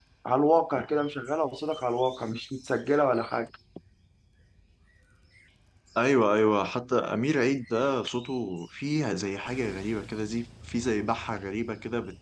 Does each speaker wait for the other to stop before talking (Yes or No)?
Yes